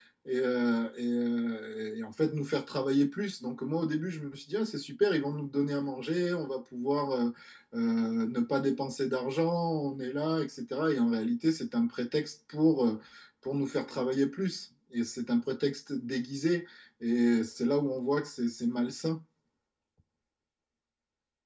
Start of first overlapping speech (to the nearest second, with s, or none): none